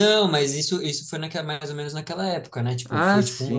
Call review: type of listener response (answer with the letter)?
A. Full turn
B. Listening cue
A